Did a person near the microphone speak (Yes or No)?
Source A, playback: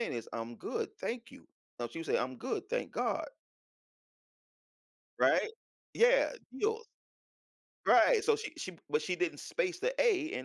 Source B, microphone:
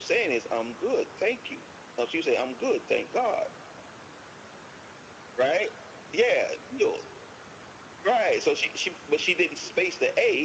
No